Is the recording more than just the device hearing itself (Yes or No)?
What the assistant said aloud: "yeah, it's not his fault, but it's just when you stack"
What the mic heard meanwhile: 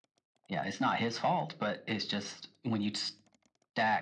No